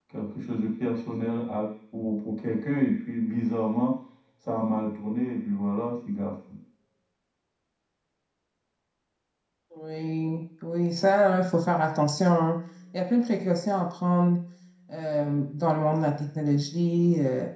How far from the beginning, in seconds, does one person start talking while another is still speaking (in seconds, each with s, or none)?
none